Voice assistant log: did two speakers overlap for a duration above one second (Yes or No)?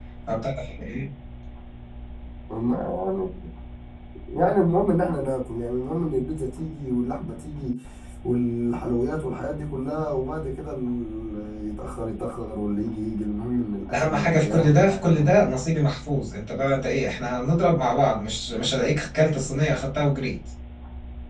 Yes